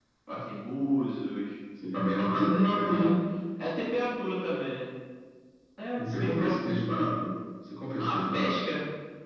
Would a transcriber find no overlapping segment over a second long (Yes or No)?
No